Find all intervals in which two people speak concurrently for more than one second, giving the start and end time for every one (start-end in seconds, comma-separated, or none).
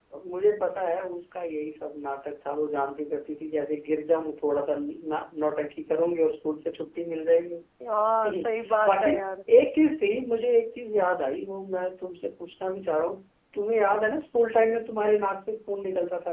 none